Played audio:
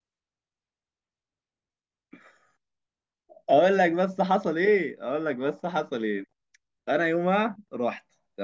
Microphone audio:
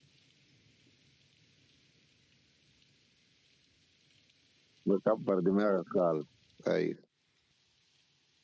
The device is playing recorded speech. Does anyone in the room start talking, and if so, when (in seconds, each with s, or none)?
4.9 s